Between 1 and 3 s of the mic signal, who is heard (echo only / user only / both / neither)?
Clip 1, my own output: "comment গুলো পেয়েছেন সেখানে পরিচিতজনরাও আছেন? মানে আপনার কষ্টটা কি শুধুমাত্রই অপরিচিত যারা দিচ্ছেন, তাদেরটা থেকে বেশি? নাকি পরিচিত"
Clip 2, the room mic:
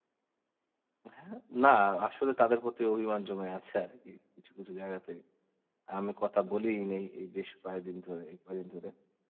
user only